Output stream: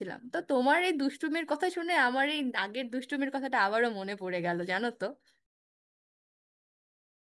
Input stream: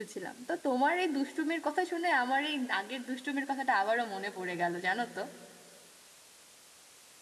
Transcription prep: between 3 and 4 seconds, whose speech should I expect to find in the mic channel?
echo only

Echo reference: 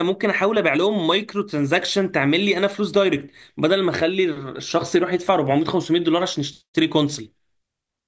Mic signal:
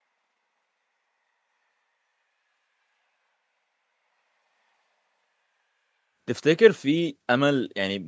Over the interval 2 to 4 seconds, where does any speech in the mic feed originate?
neither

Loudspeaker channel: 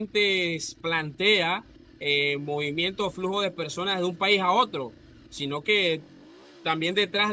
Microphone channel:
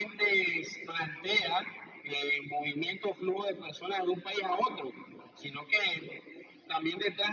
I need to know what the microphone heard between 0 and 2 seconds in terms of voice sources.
echo only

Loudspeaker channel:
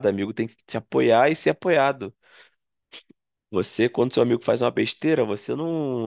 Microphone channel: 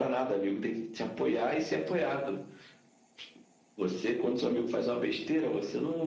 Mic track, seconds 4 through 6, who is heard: echo only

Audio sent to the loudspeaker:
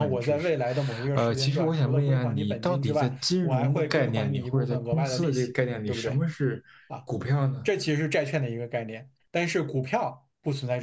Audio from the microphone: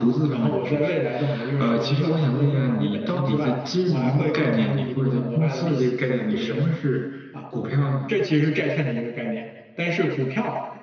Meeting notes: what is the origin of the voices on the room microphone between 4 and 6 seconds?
echo only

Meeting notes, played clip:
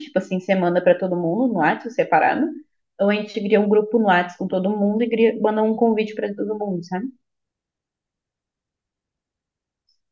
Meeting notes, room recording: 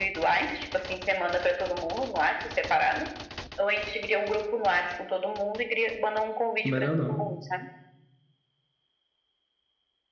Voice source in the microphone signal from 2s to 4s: echo only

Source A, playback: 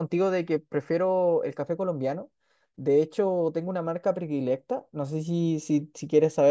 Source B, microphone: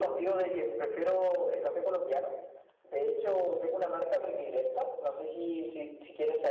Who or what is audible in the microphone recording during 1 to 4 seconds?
echo only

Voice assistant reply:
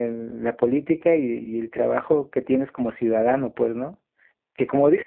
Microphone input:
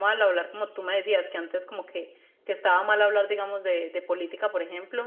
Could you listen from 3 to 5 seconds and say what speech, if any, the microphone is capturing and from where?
user only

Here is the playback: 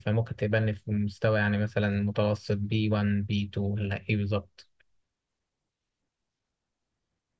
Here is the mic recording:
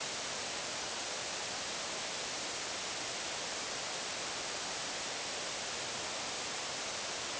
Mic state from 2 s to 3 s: neither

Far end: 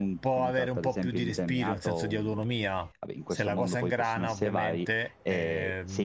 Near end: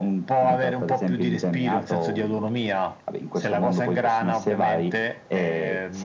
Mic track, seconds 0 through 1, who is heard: both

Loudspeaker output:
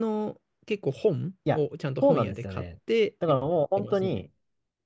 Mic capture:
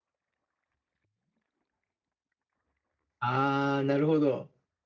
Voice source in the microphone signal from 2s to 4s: user only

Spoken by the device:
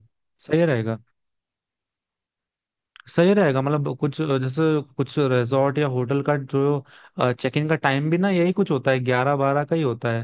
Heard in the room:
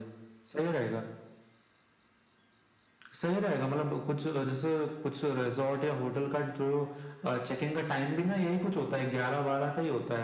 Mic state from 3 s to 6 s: echo only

